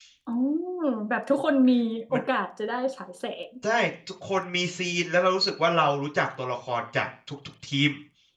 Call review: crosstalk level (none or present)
none